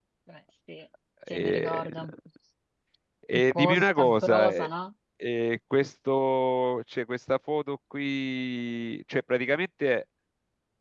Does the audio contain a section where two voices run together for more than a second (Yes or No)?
Yes